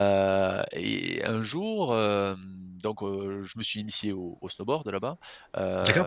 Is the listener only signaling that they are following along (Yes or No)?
No